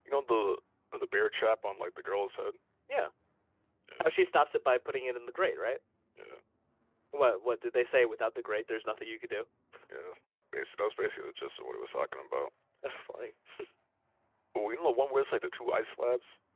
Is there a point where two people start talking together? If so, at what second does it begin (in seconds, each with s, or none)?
none